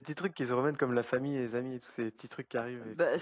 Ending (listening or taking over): taking over